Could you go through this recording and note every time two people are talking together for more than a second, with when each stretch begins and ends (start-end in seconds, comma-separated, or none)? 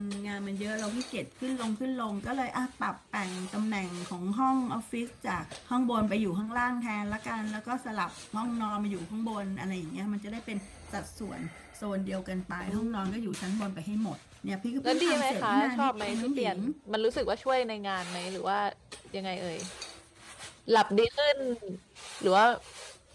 14.8-16.6